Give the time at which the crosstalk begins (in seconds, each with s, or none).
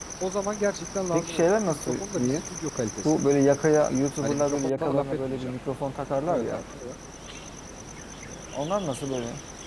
1.1 s